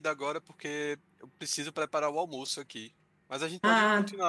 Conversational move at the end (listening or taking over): listening